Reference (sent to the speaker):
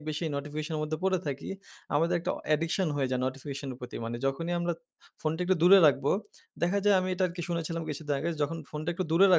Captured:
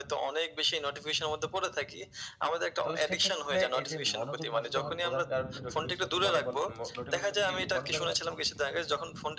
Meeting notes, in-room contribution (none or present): present